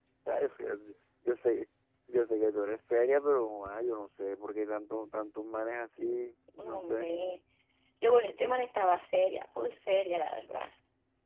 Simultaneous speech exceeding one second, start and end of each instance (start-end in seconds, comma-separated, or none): none